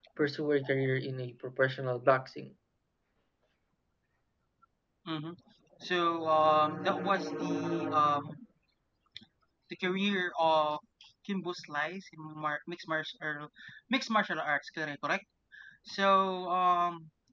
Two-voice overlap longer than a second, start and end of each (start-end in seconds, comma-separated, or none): none